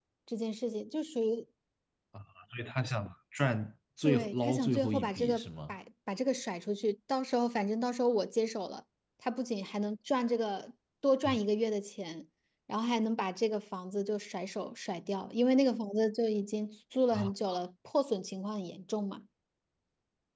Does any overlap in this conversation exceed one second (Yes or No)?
Yes